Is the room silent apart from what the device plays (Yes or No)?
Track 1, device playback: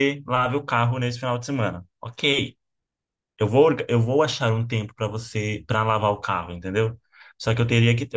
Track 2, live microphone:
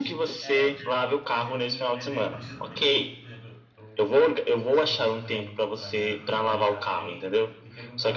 No